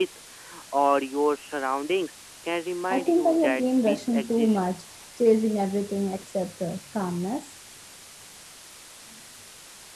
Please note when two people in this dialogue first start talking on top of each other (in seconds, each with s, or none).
2.9 s